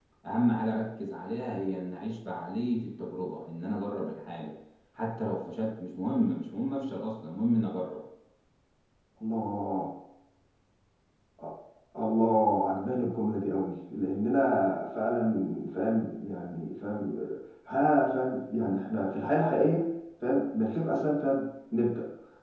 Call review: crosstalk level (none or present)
none